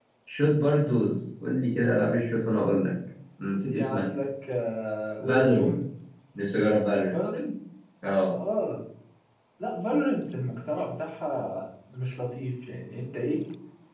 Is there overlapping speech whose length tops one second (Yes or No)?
No